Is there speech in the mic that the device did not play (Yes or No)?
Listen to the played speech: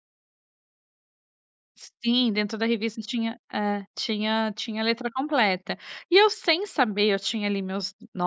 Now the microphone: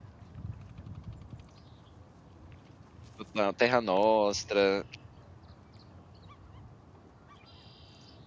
Yes